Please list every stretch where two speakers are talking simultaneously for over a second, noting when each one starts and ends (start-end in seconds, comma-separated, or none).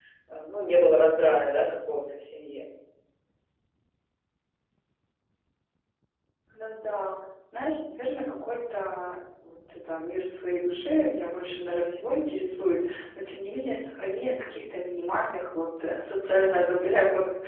none